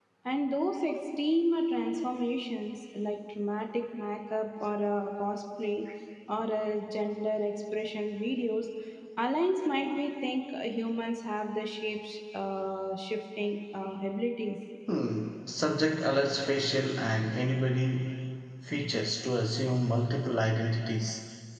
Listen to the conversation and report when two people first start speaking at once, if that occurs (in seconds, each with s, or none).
none